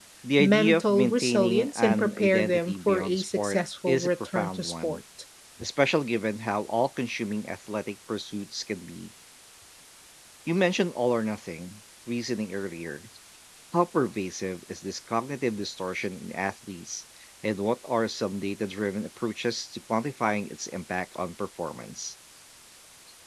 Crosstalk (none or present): present